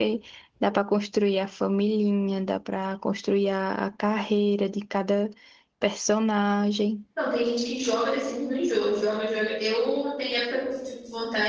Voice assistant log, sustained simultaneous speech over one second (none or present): none